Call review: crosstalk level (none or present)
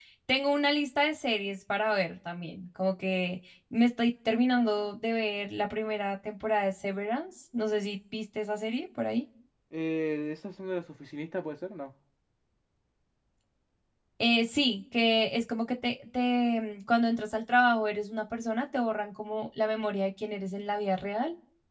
none